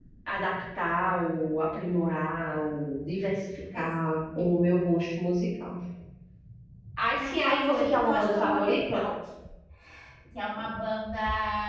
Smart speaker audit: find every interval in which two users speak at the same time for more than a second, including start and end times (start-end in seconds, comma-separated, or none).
7.2-9.0